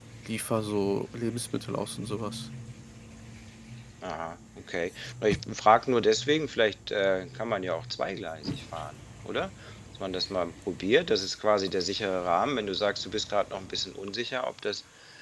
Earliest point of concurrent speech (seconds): none

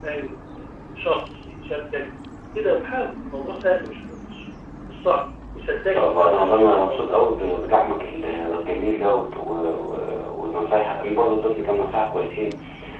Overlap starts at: 5.9 s

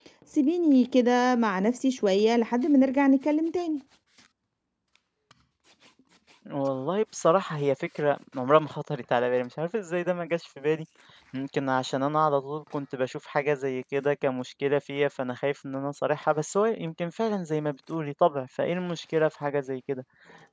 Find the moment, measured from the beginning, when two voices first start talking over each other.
none

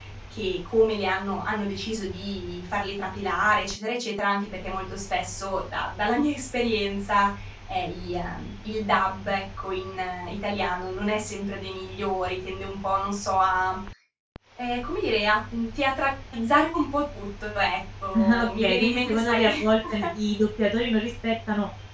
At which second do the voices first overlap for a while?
18.1 s

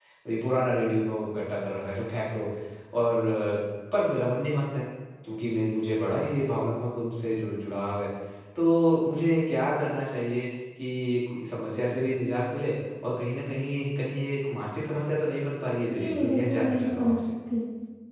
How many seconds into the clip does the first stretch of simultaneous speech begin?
15.8 s

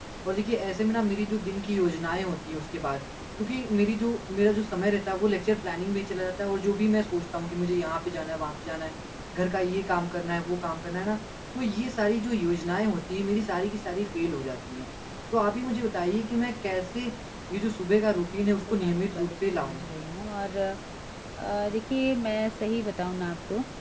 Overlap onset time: 18.5 s

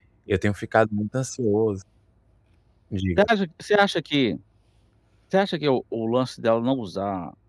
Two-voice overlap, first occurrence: none

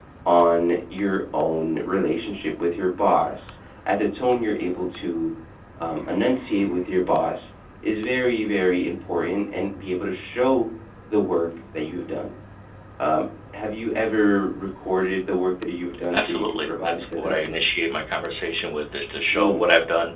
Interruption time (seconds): 16.1 s

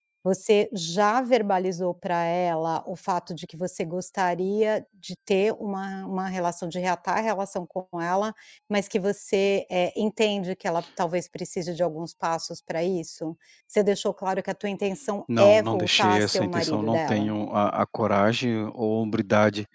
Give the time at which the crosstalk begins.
15.3 s

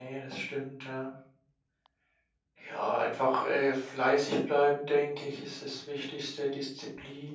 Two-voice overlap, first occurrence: none

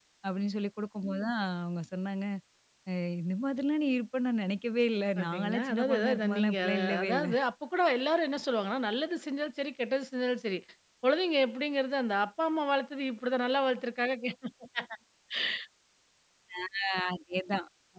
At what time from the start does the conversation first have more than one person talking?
5.2 s

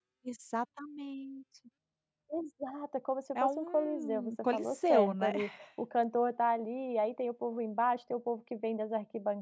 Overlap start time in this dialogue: 3.4 s

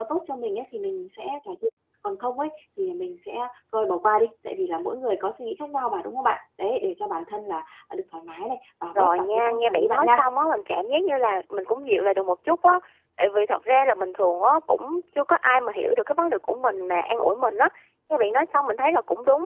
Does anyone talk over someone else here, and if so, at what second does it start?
8.9 s

